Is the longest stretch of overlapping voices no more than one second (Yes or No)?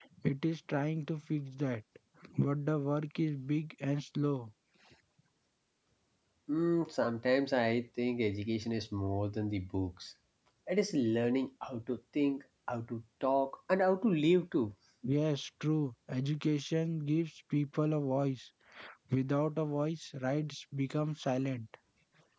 Yes